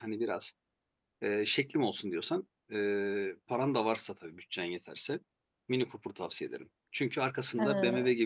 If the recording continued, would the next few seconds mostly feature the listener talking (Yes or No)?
No